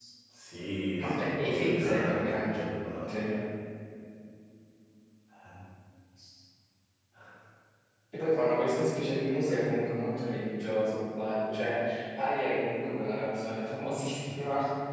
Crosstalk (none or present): present